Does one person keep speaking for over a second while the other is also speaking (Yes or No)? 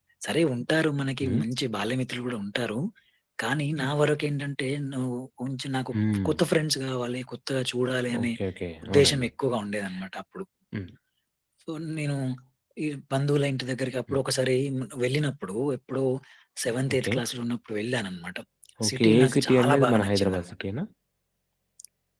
Yes